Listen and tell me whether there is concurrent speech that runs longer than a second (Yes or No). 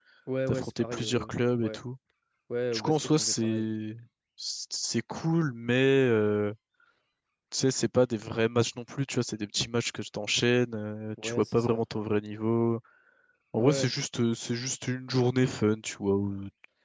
Yes